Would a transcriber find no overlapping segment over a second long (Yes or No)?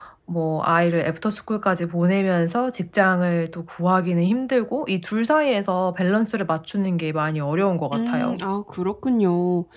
Yes